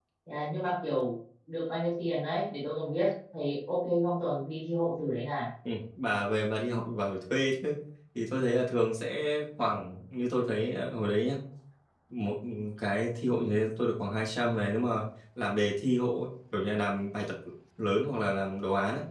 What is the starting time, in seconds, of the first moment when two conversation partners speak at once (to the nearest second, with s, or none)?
none